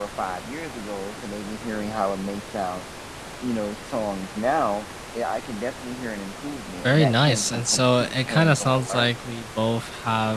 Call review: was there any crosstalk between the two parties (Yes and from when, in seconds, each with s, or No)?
Yes, from 6.8 s